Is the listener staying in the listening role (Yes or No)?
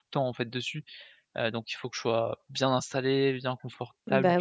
No